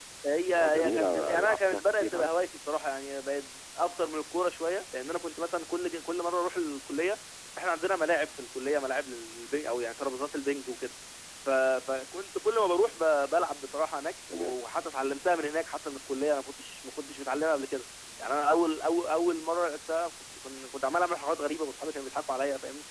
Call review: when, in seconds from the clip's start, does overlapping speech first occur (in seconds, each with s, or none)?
0.5 s